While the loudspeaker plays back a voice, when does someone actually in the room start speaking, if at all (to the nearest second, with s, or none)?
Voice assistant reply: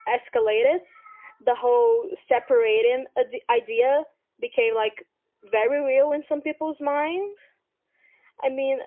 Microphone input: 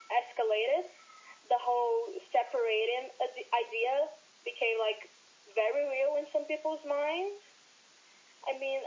none